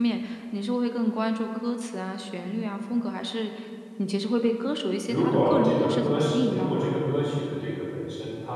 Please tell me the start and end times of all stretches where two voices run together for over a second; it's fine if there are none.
5.1-6.9

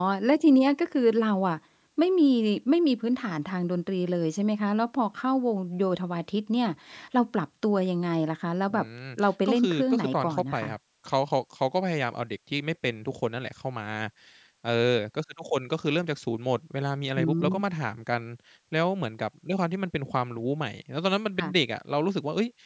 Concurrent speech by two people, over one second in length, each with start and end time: 9.5-10.7

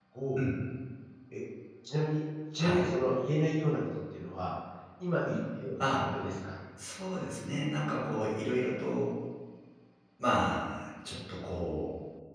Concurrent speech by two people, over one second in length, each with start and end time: none

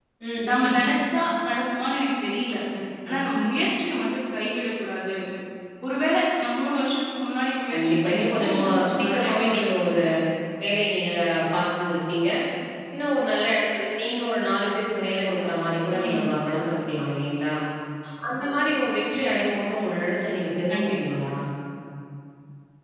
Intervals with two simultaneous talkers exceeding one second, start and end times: 7.7-9.9

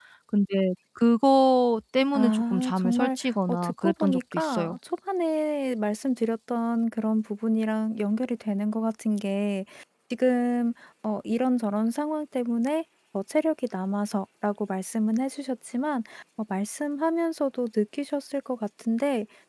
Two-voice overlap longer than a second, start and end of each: 2.1-4.8

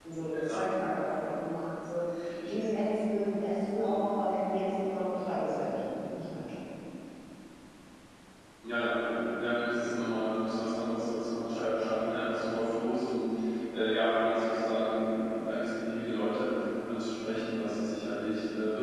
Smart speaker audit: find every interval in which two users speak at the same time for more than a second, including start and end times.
none

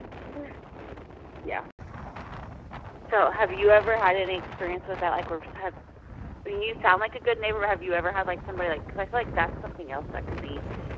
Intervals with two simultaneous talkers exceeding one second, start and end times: none

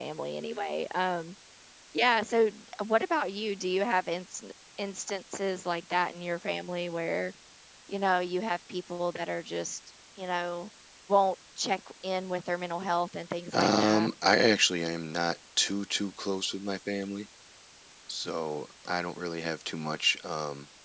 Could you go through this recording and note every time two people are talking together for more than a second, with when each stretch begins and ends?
none

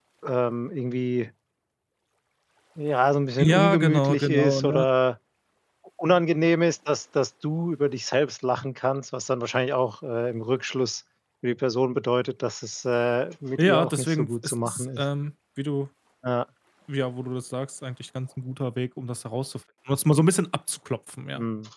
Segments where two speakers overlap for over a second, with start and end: 3.4-4.8, 13.6-15.0

